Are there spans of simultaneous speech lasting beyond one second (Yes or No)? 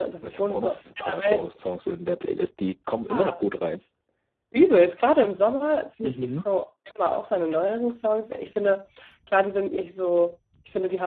Yes